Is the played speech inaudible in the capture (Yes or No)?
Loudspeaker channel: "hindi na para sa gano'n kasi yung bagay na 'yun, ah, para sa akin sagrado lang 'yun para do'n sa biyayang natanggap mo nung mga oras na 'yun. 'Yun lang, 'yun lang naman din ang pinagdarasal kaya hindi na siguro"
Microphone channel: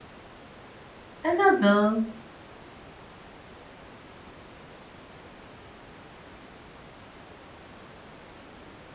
Yes